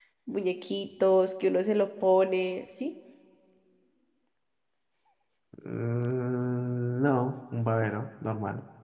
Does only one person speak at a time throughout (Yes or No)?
Yes